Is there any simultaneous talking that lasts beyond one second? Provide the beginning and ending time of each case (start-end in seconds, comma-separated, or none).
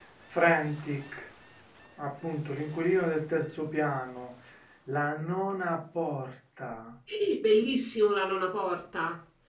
none